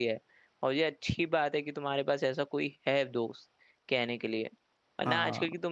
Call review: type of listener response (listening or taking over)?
listening